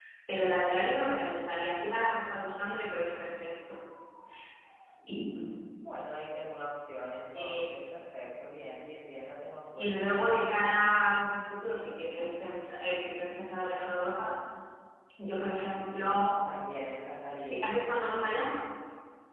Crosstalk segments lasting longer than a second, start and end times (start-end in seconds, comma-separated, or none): none